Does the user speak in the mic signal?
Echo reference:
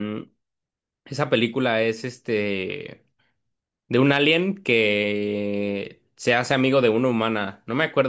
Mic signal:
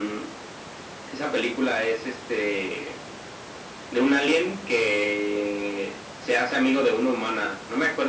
No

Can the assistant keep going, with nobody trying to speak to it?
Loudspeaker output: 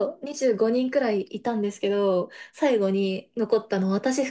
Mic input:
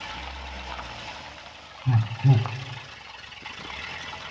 No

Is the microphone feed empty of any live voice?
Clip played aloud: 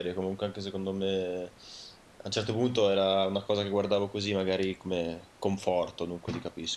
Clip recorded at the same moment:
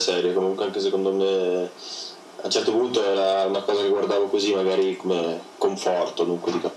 Yes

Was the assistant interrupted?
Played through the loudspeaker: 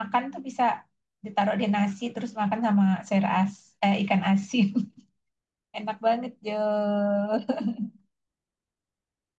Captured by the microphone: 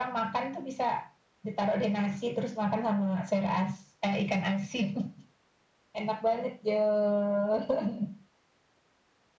No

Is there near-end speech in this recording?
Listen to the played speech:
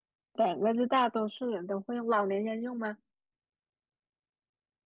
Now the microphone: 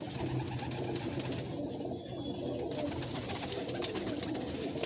No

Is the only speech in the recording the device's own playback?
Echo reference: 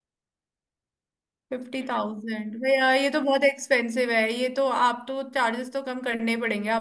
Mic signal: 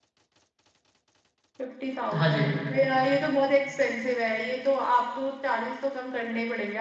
No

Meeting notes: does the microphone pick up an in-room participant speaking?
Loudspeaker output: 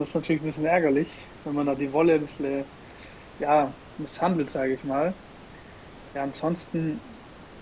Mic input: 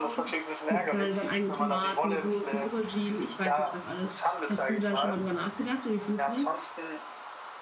Yes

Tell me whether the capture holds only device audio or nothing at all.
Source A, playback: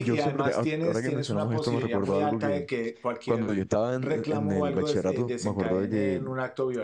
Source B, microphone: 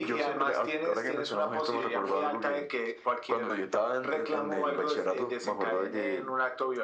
Yes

